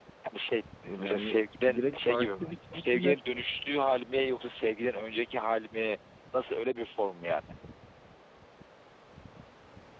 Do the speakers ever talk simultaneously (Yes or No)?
Yes